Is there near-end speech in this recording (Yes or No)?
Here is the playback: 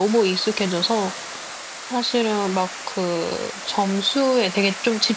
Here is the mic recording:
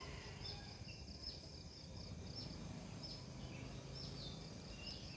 No